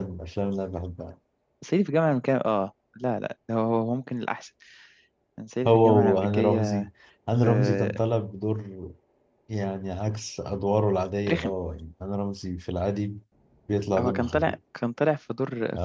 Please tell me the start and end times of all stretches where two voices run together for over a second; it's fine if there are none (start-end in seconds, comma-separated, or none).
5.7-6.9